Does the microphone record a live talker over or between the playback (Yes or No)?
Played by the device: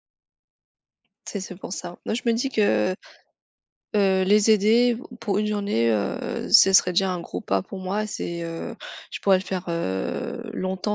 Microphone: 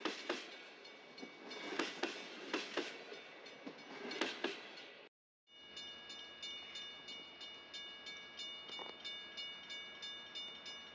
No